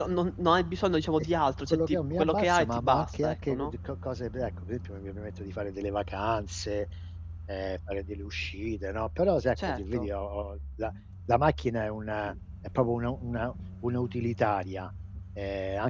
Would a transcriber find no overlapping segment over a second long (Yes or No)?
No